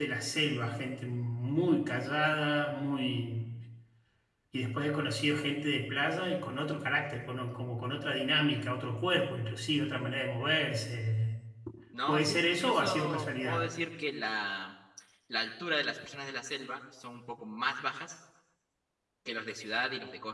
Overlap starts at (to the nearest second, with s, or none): 12 s